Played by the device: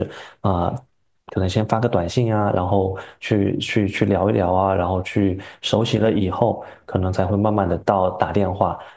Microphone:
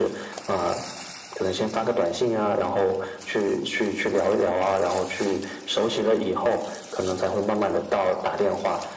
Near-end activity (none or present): none